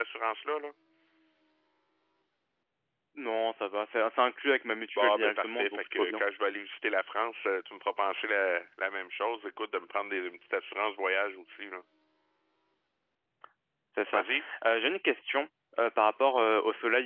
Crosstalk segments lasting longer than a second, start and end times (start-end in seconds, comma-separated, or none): 5.0-6.2